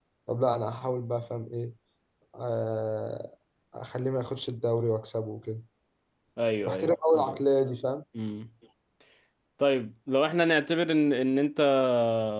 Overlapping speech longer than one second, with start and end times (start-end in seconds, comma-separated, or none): none